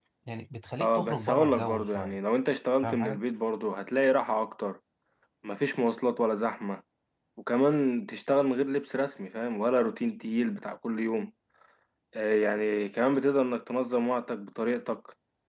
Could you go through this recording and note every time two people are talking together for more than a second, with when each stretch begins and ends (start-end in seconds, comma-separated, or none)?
0.8-2.2